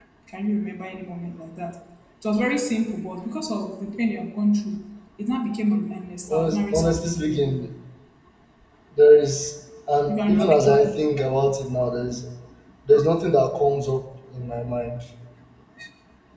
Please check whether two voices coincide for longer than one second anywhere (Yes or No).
Yes